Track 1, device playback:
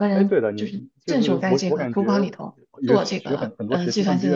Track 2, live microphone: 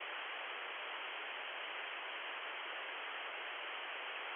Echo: none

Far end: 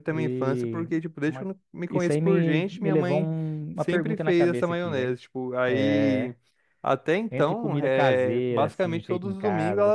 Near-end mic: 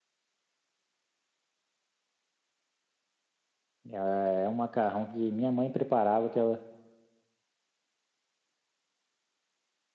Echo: none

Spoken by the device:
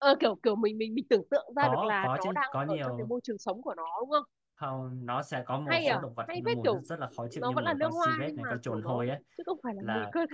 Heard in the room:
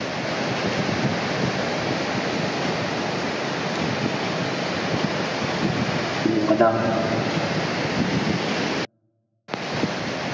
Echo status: none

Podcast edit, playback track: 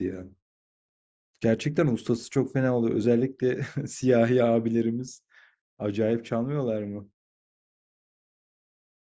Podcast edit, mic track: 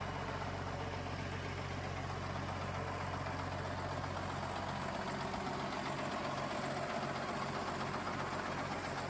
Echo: none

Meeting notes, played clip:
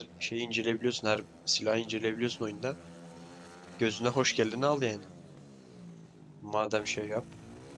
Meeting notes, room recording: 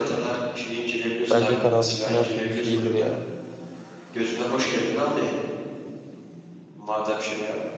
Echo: present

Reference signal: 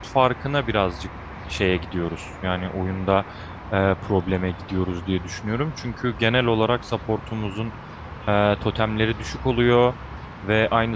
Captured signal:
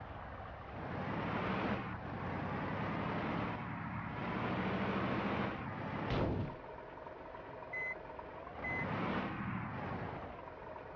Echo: none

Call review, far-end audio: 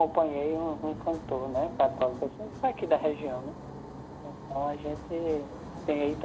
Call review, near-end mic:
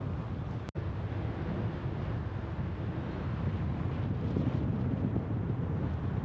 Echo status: none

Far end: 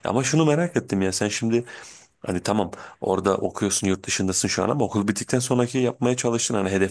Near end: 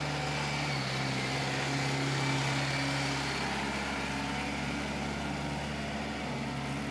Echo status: none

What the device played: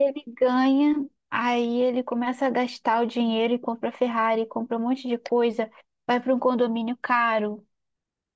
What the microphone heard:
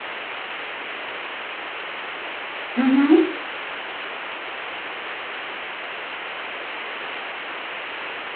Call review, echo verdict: none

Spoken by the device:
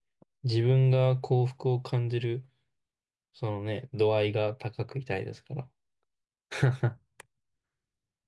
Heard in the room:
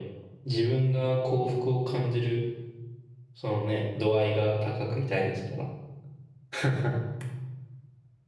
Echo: present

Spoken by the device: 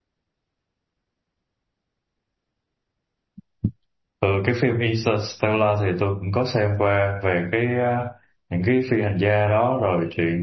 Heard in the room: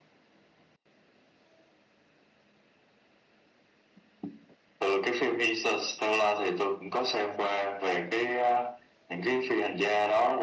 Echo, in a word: present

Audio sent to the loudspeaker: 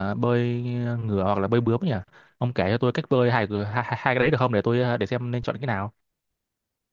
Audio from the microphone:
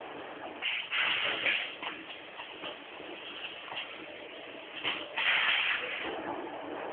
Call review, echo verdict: none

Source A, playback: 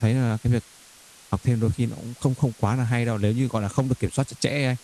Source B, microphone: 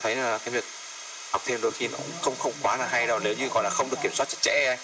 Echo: present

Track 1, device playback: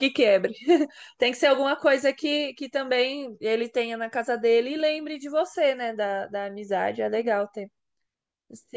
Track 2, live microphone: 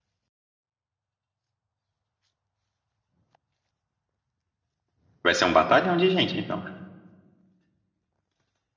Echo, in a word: none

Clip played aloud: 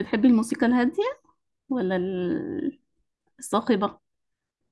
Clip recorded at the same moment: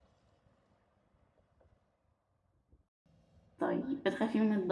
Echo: none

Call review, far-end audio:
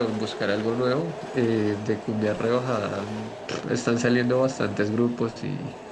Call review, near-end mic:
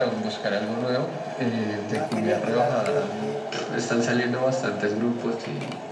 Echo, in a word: present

